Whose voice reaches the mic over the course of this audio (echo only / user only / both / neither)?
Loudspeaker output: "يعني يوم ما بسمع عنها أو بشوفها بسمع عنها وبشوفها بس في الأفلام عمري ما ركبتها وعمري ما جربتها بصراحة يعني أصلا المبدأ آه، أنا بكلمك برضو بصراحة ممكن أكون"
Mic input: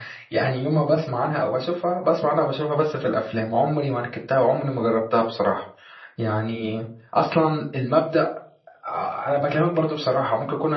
echo only